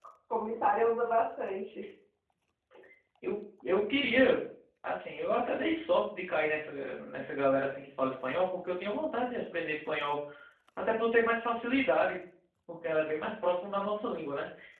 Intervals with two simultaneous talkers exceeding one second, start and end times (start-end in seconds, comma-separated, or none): none